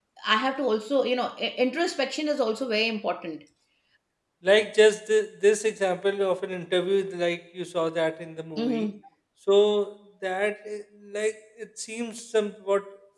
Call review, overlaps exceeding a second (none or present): none